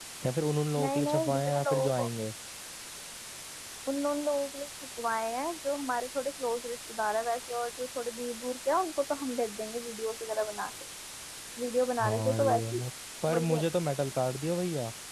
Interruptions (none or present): present